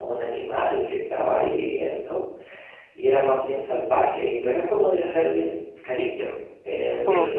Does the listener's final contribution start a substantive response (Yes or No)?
No